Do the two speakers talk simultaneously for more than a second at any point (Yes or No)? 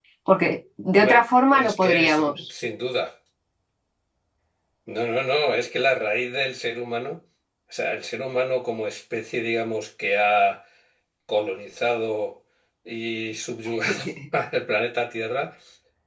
Yes